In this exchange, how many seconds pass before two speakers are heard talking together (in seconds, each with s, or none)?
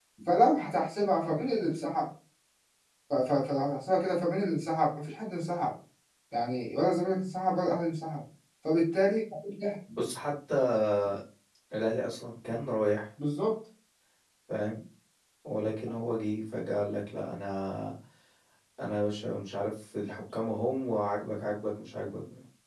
none